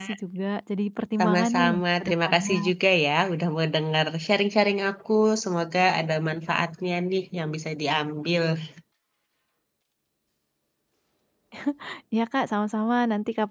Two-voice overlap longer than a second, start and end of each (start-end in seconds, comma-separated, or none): 1.2-2.5